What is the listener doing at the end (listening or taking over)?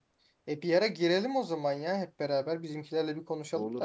taking over